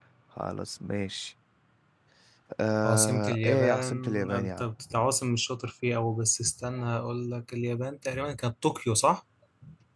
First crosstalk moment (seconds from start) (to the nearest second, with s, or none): 3 s